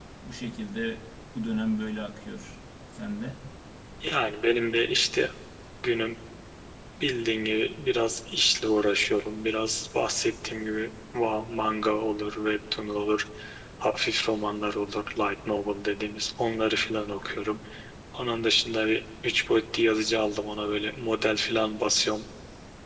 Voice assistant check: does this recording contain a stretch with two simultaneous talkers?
No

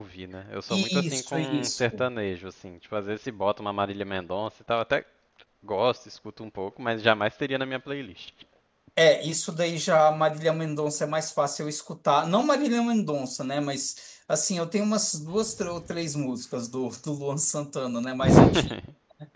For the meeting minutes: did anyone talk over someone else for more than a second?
Yes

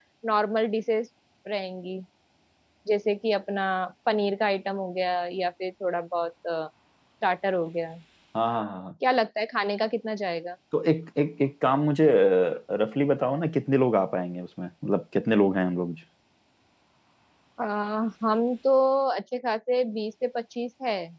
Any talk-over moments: No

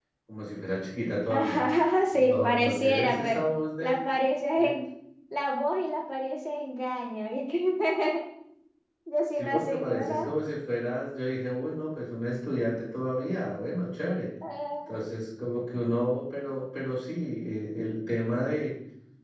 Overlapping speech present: Yes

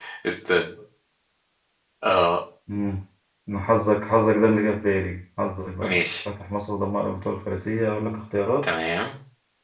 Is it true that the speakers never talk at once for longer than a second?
Yes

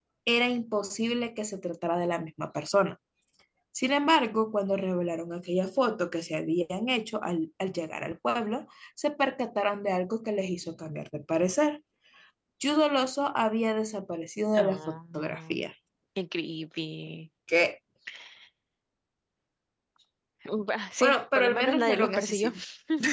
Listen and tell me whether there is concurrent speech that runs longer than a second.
Yes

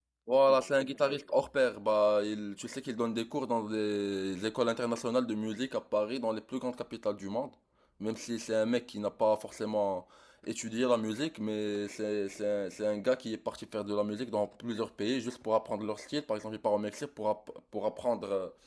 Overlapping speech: No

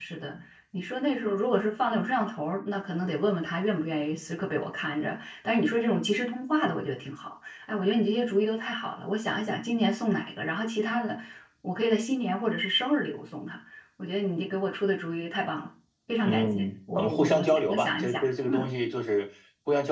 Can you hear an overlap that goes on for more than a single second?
Yes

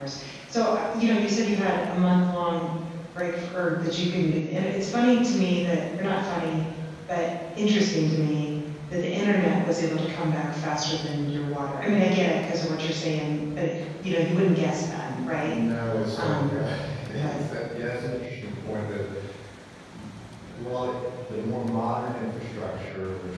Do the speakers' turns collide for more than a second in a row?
No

